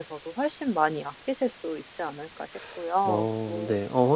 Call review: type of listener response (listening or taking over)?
taking over